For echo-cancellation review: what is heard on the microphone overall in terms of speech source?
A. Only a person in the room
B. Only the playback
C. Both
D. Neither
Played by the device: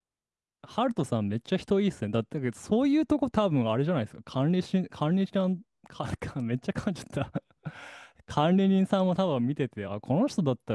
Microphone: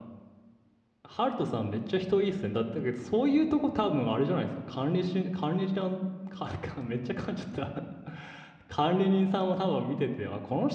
B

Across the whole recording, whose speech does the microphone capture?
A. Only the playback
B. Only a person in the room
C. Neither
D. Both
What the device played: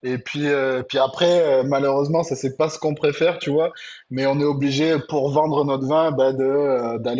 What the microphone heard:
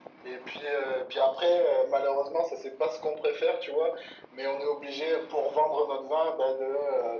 A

